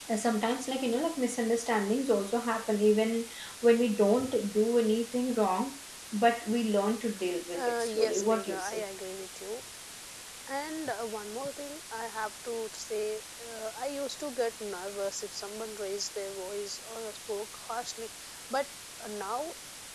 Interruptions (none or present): present